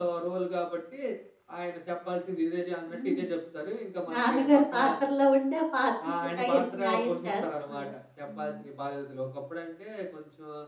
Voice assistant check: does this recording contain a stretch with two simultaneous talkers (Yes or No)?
Yes